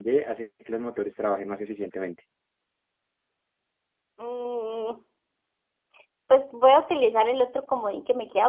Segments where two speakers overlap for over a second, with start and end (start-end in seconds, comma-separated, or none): none